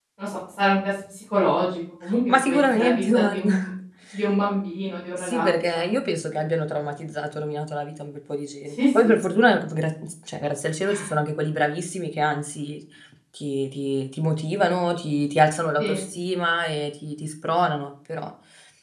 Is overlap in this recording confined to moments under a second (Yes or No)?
No